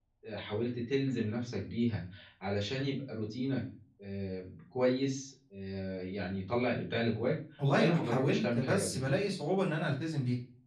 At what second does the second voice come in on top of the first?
7.6 s

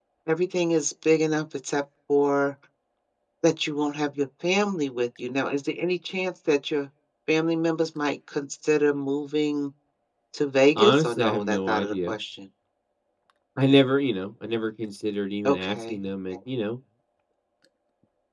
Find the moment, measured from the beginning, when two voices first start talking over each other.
10.8 s

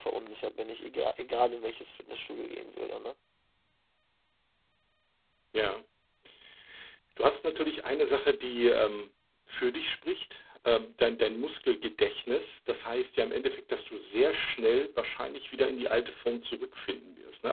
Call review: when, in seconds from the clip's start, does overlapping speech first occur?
none

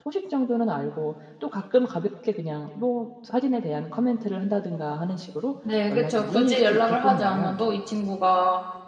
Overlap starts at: 5.9 s

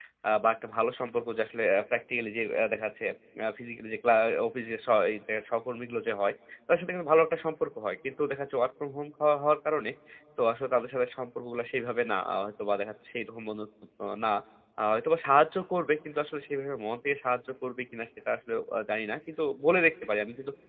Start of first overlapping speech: none

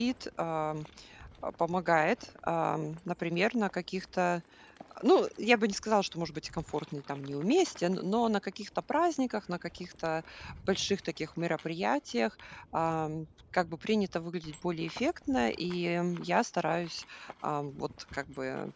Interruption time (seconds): none

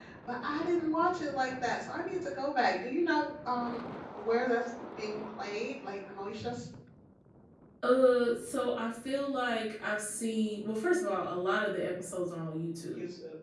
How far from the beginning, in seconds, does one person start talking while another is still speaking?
none

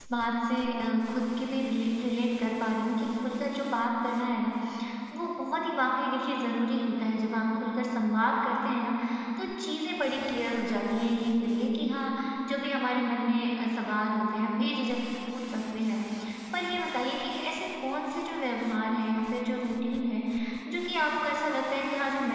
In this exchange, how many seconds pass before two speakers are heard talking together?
none

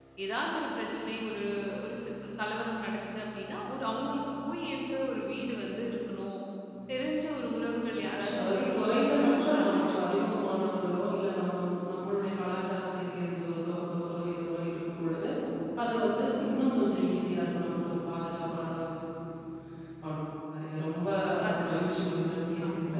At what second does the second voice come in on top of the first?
8.0 s

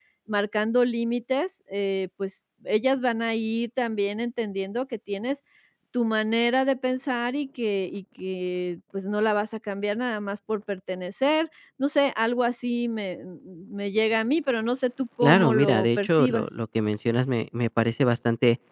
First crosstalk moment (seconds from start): 15.2 s

